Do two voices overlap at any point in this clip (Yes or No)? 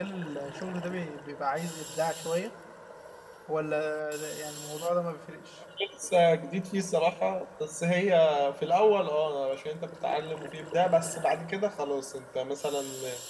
No